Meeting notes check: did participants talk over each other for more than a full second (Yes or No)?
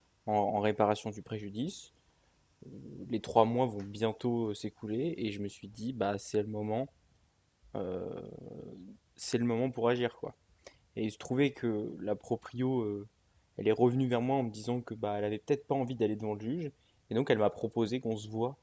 No